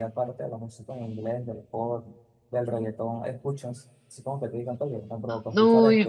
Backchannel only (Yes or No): No